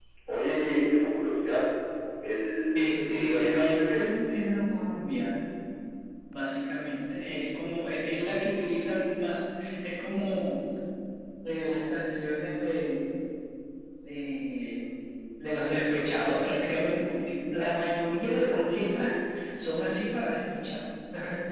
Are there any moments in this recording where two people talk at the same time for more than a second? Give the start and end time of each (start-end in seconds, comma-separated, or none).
2.7-4.2